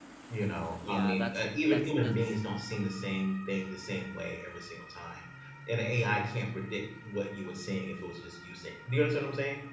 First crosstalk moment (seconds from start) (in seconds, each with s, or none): 0.8 s